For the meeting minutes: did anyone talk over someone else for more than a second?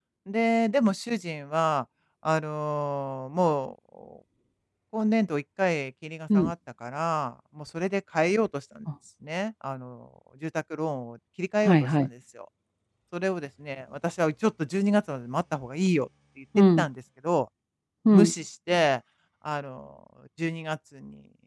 No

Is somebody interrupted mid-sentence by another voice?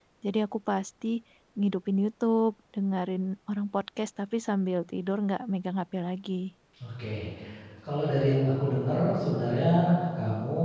No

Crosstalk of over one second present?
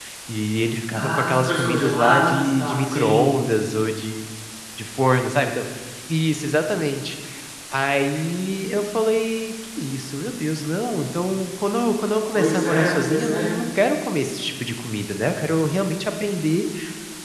Yes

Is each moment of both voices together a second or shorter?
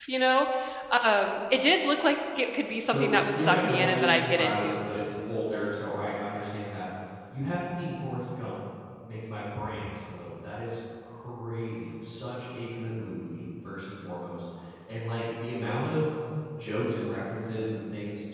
No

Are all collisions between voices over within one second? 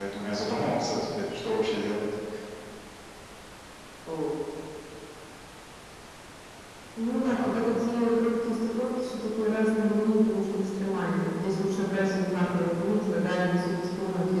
Yes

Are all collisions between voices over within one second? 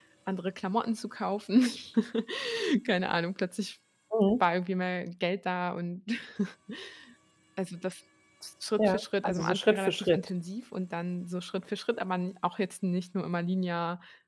No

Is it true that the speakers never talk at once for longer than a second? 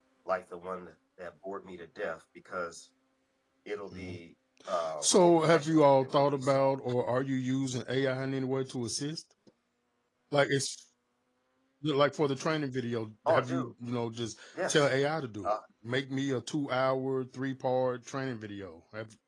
No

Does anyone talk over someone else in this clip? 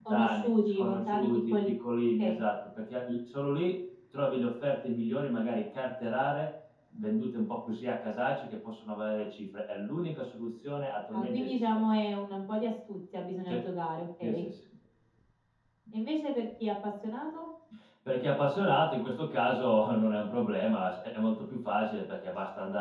Yes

